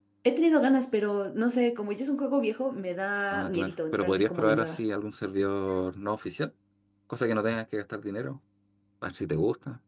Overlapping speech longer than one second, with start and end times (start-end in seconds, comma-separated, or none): 3.3-4.8